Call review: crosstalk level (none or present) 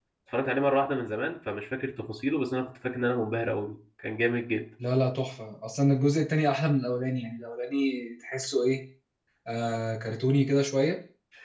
none